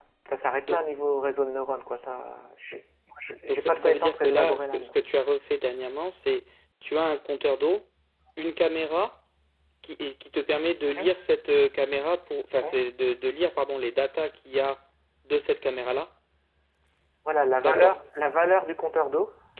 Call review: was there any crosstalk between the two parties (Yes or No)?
Yes